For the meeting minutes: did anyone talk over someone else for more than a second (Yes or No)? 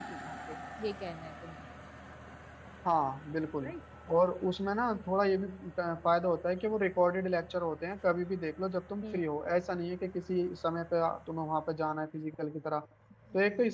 No